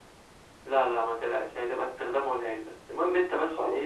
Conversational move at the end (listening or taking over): listening